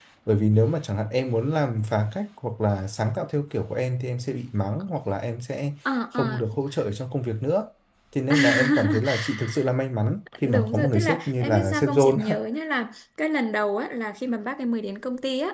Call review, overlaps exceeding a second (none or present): present